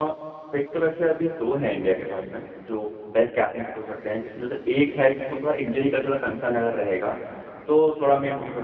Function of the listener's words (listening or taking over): listening